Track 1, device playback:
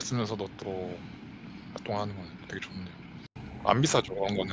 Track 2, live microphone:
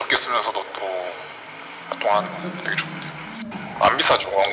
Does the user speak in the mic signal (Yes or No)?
Yes